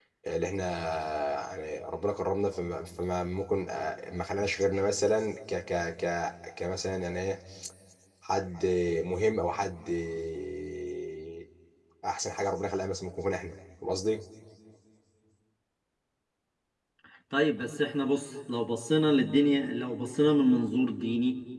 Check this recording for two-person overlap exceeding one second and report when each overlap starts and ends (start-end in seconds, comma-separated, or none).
none